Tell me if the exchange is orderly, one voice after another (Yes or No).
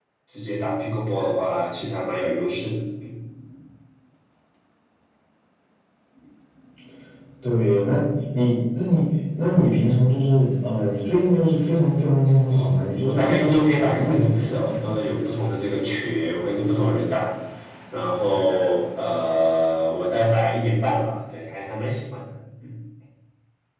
No